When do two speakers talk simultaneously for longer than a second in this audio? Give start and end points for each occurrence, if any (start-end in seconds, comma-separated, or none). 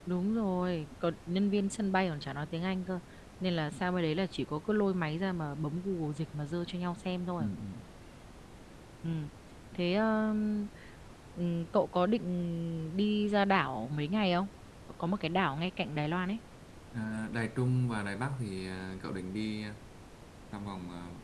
none